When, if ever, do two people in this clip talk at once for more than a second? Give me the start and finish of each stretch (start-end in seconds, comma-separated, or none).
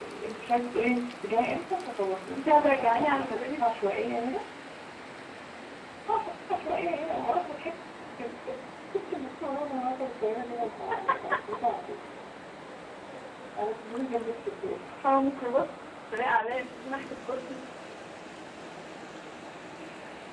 2.4-3.6